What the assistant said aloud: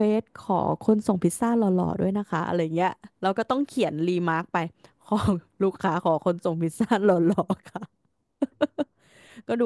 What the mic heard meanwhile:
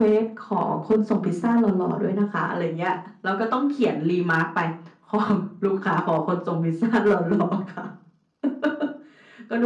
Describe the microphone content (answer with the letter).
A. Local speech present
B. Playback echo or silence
B